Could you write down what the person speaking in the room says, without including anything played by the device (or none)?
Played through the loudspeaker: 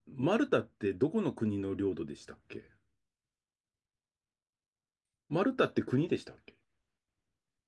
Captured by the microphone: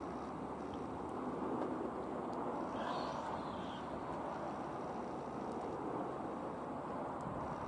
none